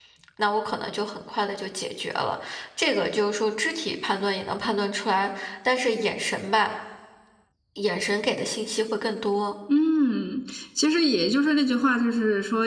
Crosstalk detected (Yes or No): No